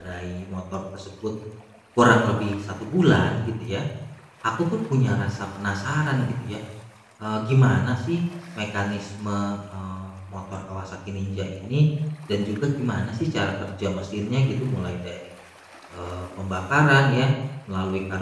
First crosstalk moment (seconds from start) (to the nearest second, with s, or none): none